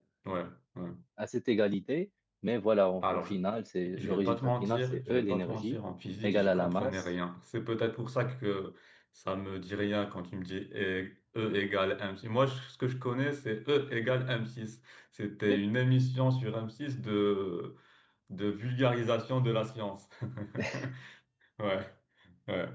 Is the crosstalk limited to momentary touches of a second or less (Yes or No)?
No